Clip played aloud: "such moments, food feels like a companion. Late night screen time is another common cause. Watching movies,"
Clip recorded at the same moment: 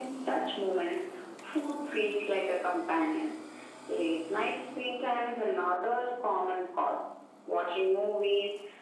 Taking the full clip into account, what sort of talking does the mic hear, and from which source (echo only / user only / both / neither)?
echo only